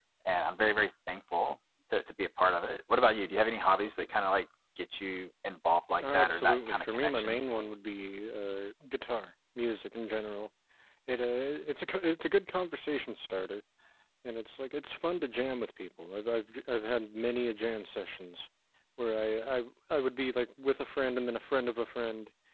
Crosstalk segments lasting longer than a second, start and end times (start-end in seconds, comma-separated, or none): 6.0-7.4